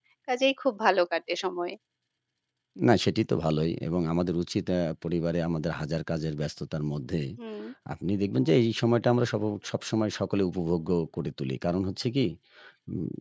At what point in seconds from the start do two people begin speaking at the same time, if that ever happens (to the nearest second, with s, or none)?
none